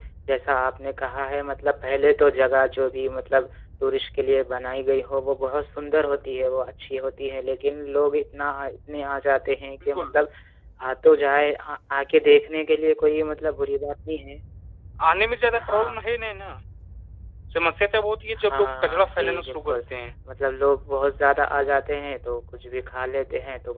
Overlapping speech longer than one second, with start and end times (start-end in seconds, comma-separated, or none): 18.5-19.8